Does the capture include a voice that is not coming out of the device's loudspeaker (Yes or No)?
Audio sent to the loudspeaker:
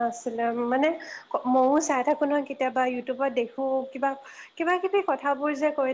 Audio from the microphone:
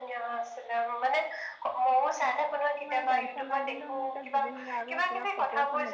Yes